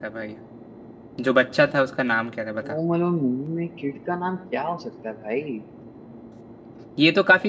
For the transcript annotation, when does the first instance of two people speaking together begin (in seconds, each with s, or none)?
none